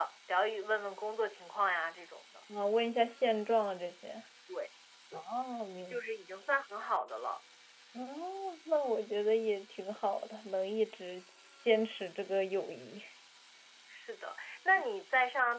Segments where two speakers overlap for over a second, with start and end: none

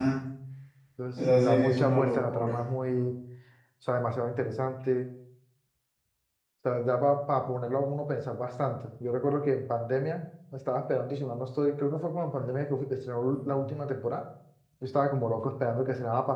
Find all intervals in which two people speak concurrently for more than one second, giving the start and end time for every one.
1.4-2.6

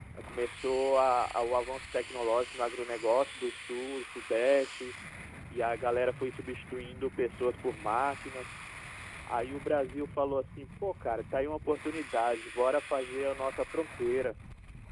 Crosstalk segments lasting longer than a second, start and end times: none

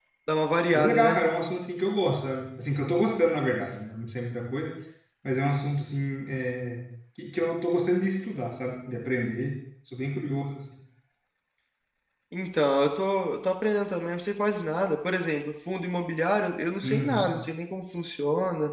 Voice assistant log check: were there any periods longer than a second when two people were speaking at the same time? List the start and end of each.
none

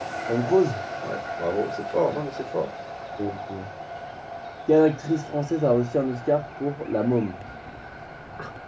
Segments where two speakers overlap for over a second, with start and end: none

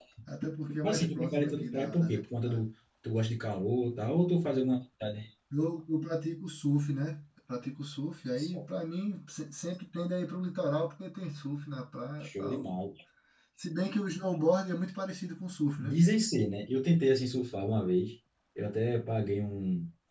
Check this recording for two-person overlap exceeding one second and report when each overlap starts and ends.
0.8-2.6

